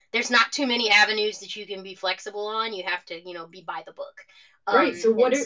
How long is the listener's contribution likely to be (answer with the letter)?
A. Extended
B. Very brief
A